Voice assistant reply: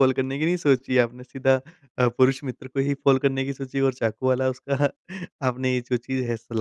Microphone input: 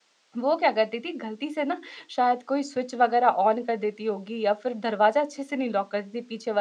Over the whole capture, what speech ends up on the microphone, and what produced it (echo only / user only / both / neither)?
user only